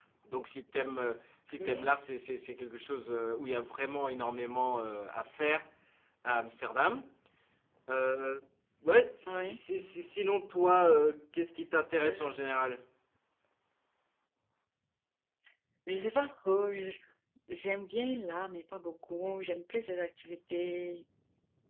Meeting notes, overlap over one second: none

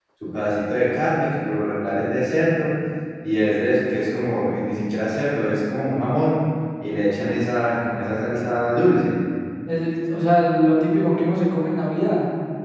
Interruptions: none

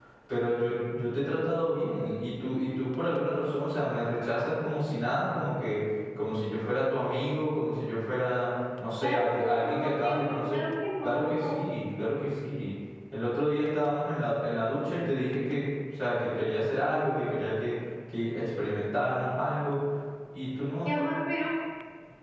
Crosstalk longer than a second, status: present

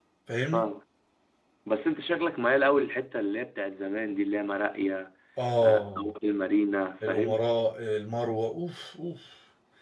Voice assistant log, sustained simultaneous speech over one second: none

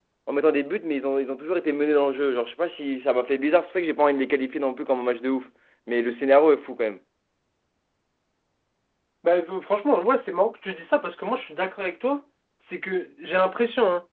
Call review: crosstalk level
none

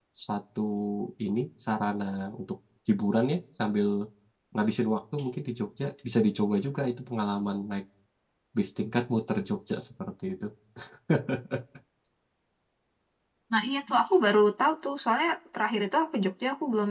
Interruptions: none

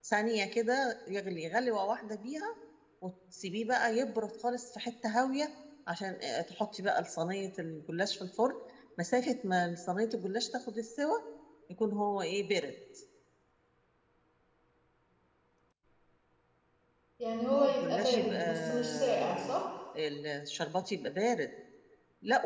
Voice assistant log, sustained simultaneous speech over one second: present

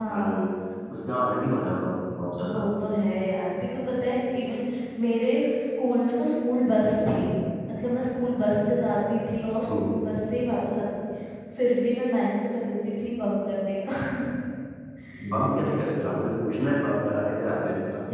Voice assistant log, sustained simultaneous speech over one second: none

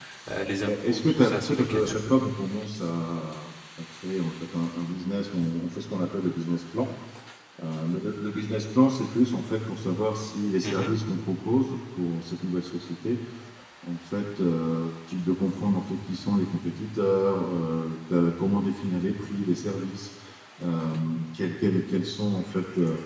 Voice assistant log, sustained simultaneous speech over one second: present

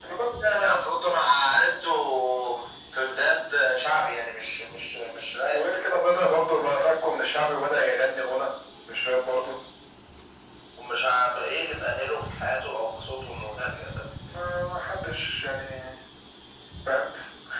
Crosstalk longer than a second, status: none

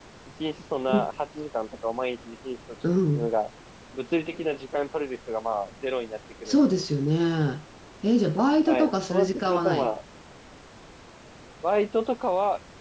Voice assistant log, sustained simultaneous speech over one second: present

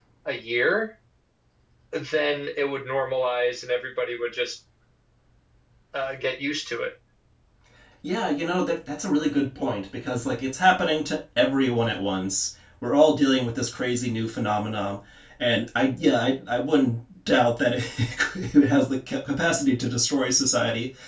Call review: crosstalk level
none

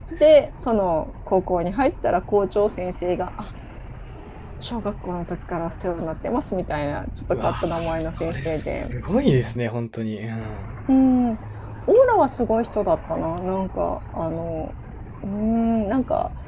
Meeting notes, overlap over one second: present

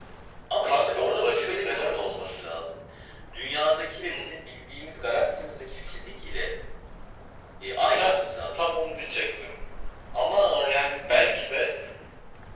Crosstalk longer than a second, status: present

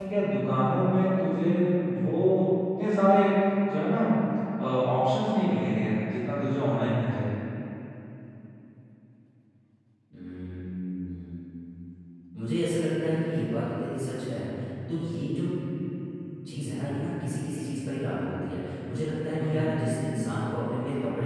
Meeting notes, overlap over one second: none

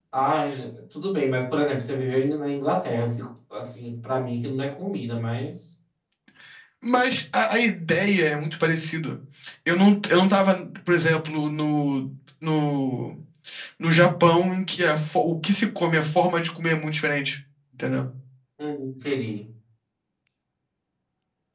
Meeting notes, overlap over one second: none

